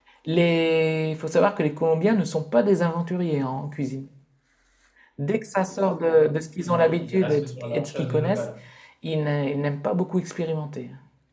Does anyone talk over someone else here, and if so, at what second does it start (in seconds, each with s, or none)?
6.6 s